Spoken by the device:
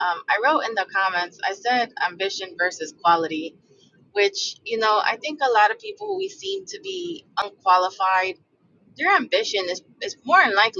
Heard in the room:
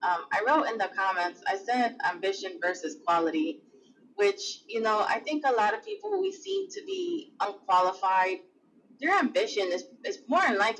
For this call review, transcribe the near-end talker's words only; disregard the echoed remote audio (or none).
none